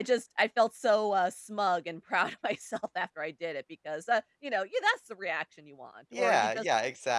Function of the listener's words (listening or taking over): taking over